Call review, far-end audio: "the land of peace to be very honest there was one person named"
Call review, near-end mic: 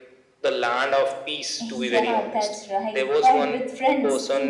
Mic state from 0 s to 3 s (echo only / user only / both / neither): both